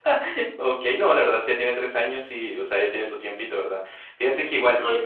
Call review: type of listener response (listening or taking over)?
listening